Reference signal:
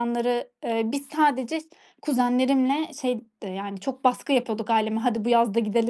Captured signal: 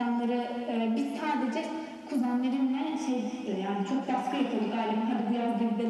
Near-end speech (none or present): none